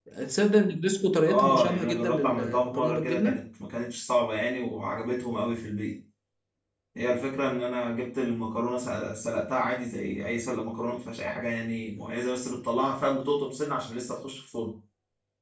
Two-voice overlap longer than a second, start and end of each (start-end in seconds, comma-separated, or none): 1.3-3.4